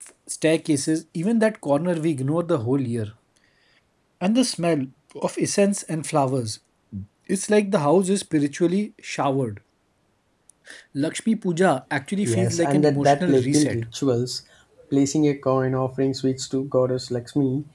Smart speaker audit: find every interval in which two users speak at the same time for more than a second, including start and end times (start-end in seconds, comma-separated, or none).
12.2-13.8